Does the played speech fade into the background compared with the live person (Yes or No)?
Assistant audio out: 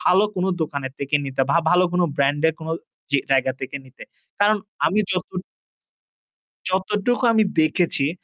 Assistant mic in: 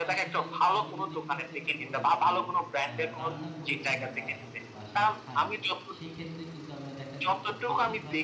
No